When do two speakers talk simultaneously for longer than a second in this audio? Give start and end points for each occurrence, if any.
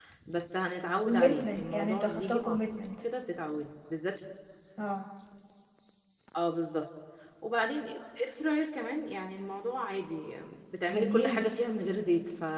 1.0-2.6

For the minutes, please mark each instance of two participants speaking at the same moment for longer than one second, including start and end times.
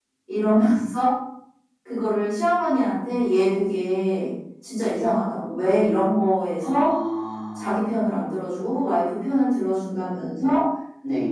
none

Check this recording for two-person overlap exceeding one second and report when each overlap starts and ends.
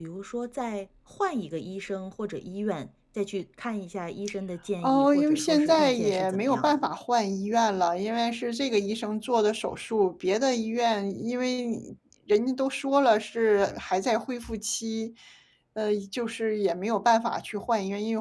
4.8-6.8

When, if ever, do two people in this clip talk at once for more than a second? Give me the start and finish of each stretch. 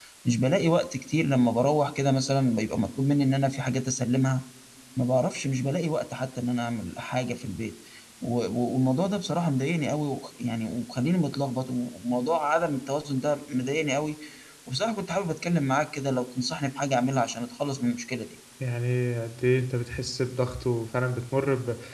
none

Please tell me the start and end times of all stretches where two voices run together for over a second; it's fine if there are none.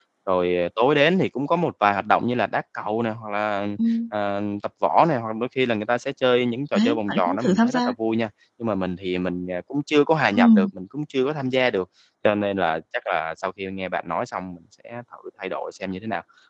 6.7-7.9

